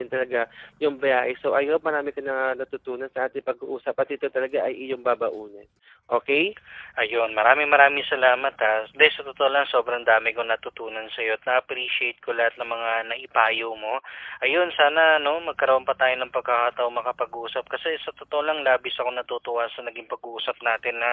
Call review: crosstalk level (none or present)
none